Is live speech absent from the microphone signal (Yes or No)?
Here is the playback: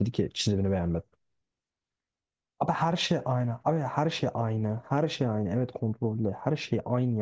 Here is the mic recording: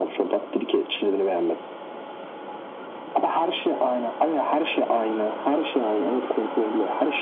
Yes